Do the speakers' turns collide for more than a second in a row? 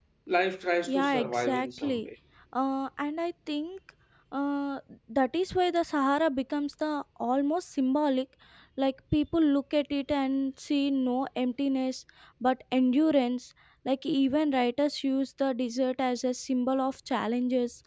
Yes, from 0.8 s

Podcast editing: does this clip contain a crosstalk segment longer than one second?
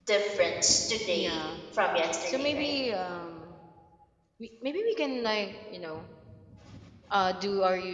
No

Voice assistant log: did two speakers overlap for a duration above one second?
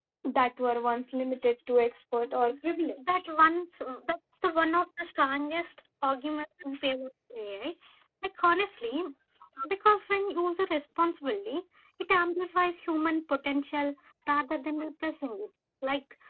No

